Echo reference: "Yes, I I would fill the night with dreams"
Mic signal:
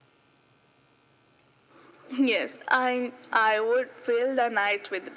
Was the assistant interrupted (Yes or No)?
No